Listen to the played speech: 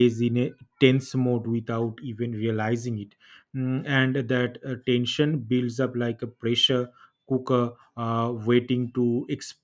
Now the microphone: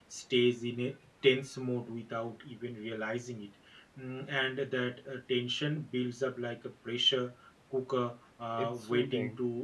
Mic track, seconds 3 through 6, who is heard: echo only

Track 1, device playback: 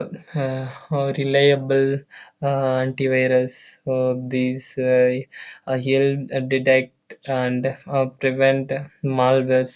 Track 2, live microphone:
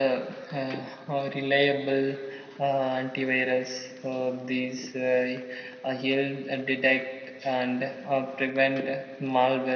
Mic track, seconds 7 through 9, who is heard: echo only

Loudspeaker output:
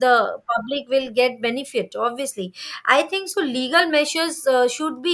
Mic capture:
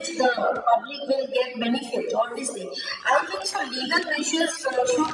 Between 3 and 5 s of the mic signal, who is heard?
echo only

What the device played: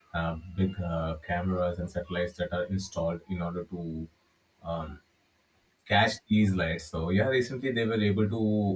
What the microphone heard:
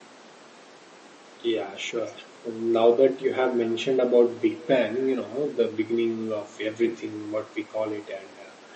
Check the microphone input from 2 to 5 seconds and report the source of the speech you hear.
user only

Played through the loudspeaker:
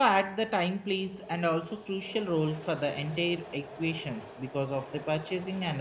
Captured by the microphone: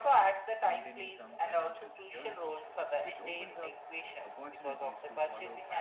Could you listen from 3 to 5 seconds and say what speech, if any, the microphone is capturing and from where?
both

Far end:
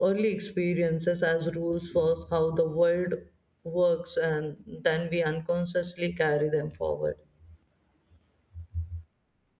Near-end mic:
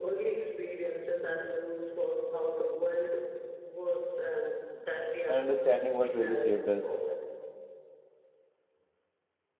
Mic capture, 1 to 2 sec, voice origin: echo only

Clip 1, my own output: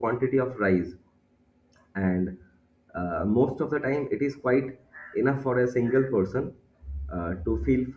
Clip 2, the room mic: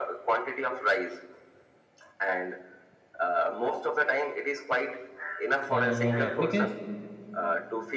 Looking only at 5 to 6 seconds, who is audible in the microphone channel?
both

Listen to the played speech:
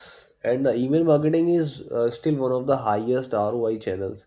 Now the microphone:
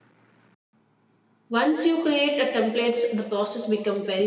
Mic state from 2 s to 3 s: user only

